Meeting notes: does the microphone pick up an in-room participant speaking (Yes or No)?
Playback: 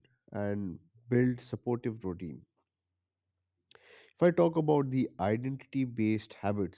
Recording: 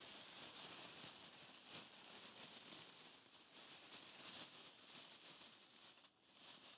No